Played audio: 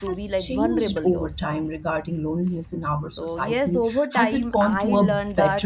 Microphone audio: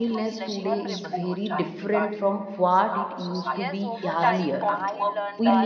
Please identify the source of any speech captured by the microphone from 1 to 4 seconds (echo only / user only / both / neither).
both